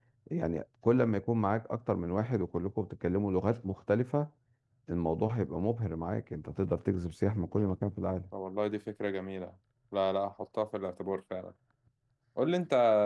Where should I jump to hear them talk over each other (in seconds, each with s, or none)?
none